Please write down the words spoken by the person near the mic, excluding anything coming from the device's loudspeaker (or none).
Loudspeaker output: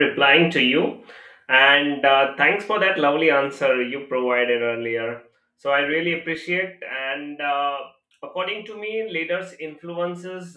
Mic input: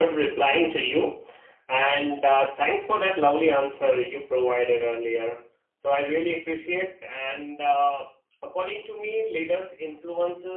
none